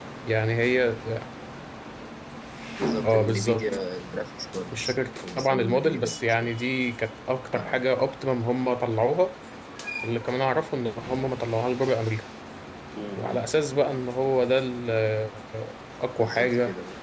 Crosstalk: present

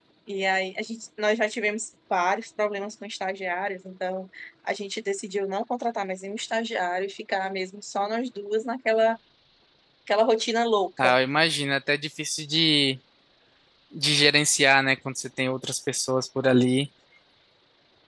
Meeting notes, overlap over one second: none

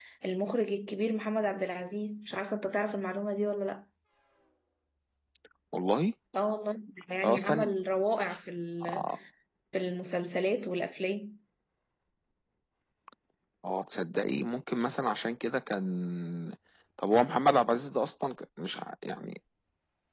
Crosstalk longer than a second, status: none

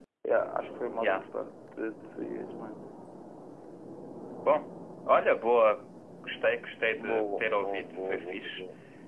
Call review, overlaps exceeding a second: present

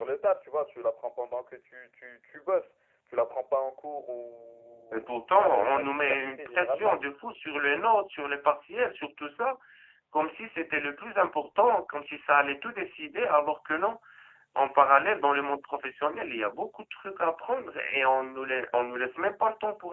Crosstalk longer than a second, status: present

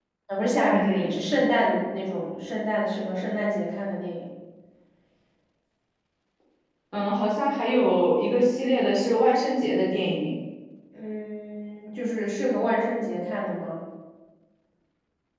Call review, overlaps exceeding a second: none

